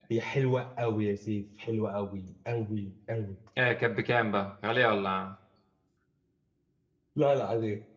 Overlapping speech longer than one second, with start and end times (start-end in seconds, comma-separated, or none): none